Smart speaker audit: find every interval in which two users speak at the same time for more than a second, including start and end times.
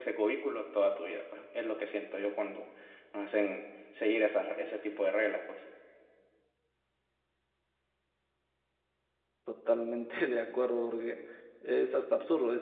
none

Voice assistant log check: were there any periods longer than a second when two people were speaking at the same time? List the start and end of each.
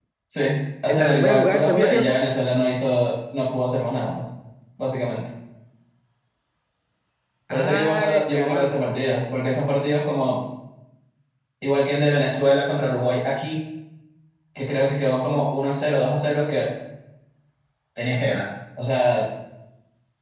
0.9-2.3, 7.5-8.9

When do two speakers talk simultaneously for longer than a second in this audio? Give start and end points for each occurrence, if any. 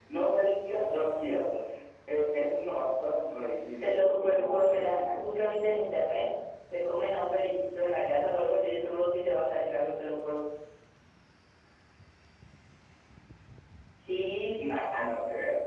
3.8-5.2

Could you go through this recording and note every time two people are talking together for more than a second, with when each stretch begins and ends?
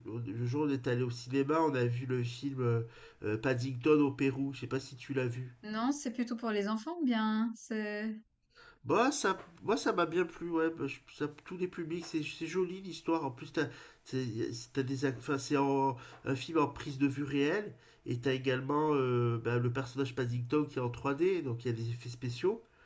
none

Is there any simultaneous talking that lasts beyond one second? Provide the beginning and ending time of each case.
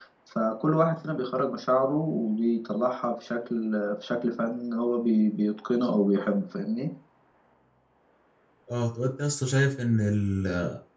none

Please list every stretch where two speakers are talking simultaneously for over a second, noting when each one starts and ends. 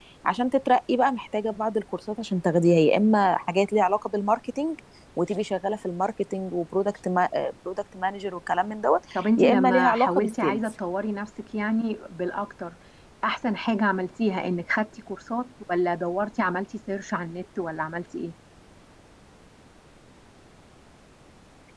9.2-10.6

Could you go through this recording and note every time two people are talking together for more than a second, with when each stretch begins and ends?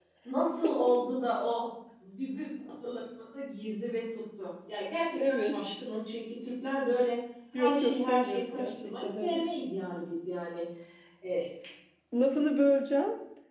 7.6-9.4

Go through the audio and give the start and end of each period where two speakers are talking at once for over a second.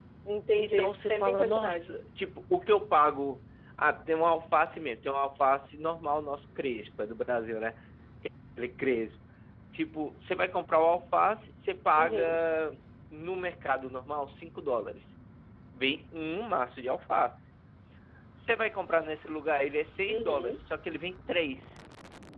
0.6-2.0

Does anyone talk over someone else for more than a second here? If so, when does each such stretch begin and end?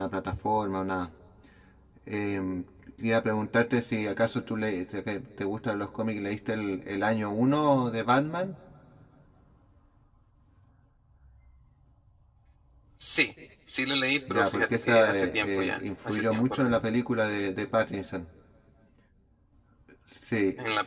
14.3-16.8

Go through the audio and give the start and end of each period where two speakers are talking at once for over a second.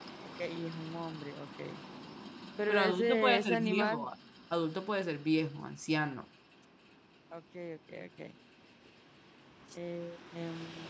2.7-4.1

